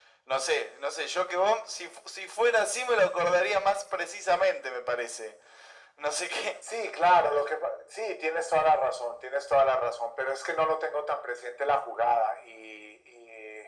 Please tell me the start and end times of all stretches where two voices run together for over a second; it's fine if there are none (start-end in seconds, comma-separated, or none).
none